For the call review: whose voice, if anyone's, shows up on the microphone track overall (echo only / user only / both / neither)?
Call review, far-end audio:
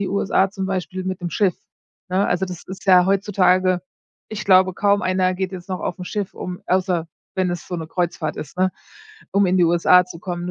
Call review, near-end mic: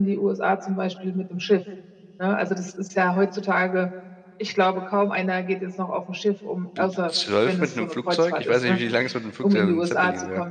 both